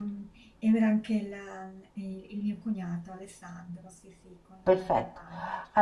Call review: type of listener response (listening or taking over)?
taking over